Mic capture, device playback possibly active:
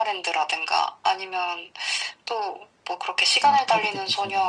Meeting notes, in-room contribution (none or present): present